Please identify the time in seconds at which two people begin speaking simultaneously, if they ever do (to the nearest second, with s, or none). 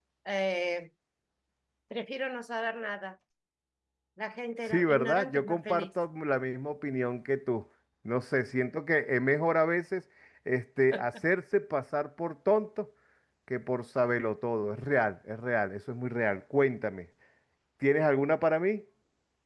5 s